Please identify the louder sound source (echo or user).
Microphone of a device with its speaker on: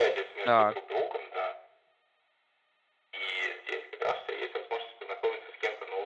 user